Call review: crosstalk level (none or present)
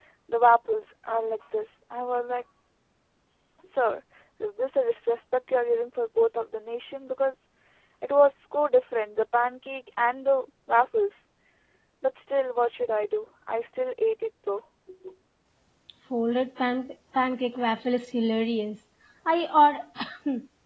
none